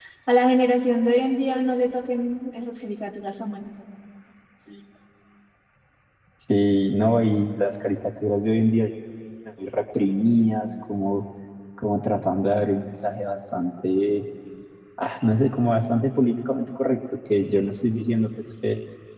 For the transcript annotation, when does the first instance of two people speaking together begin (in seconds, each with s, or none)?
none